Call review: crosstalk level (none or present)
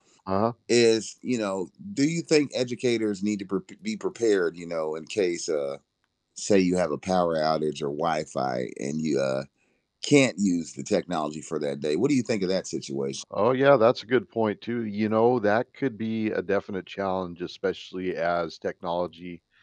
none